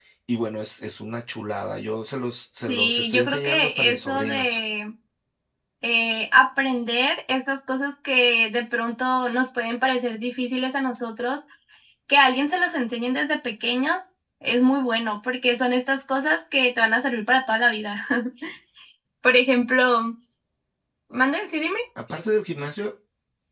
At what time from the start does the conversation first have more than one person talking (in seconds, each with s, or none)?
2.7 s